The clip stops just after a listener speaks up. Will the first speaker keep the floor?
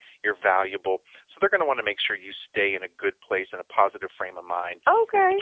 Yes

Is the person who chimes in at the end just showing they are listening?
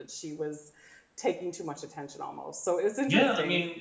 No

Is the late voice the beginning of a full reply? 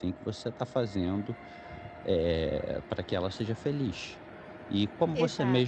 No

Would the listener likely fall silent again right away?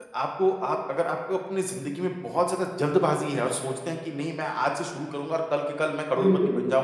Yes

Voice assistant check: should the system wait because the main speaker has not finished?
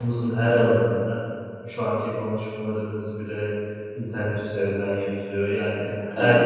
Yes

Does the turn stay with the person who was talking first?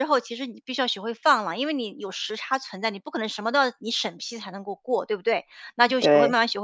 Yes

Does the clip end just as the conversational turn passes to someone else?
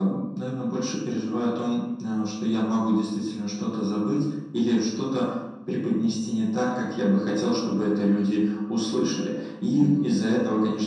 No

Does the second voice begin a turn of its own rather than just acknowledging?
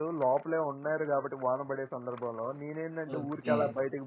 No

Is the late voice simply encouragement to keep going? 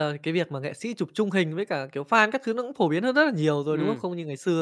Yes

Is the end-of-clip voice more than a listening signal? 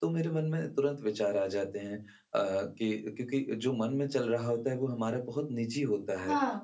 No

